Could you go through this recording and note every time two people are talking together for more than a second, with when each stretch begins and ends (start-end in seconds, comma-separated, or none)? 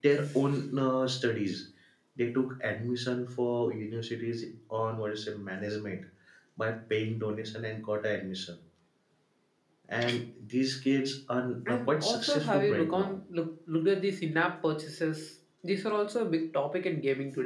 11.7-13.2